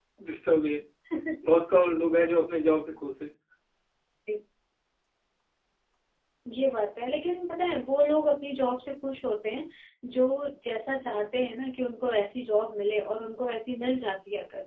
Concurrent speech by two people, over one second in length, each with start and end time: none

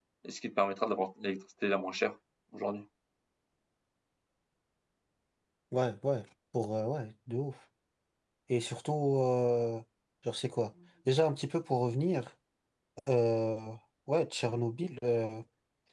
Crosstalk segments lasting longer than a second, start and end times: none

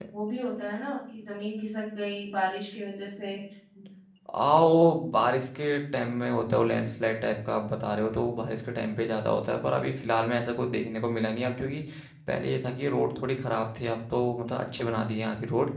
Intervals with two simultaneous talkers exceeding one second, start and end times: none

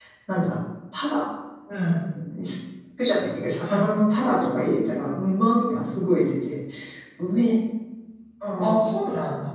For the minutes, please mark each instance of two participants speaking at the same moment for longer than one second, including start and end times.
none

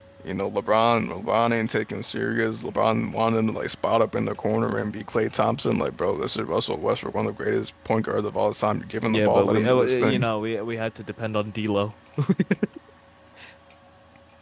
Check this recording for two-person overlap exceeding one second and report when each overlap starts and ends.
9.1-10.3

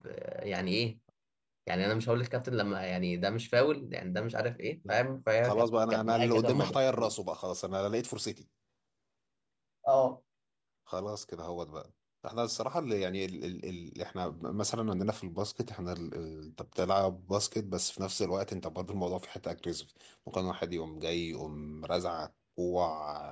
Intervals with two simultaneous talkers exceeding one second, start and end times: 5.4-6.8

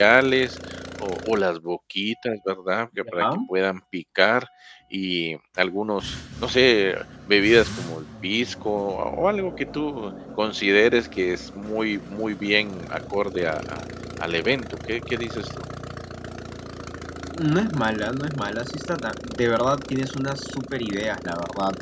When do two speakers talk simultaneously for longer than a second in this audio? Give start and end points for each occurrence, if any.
none

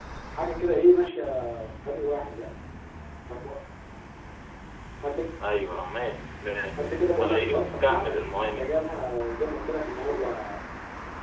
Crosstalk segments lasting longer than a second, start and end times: 7.2-8.7

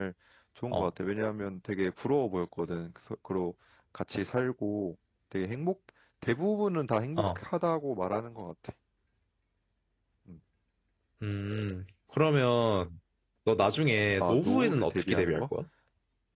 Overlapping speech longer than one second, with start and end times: 14.2-15.4

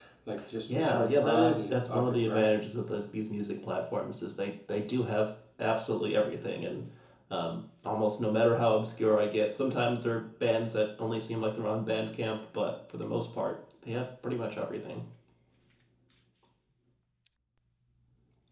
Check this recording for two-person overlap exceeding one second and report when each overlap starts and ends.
0.7-2.5

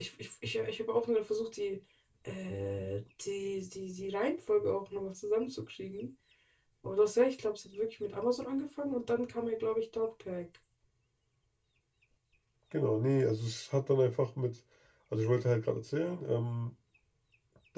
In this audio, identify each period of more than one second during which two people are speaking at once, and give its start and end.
none

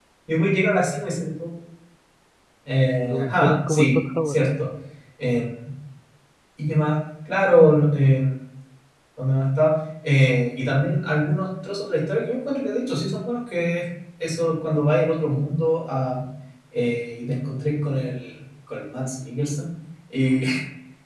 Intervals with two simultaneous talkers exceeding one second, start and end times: 3.0-4.4

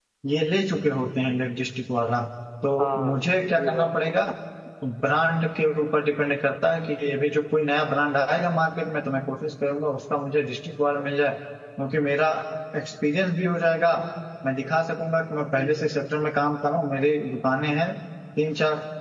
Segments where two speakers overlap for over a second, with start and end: 2.8-4.2

